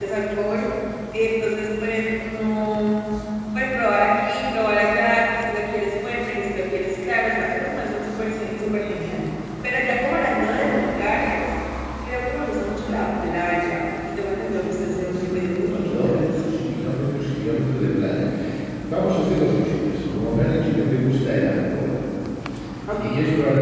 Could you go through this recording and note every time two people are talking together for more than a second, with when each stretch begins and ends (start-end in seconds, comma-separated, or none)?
14.4-16.2